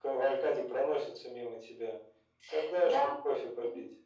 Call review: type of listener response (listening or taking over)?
taking over